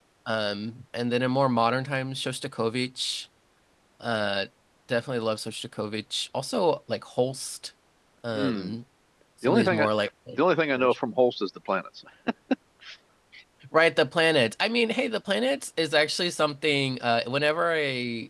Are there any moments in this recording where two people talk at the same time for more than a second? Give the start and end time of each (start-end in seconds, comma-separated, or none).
none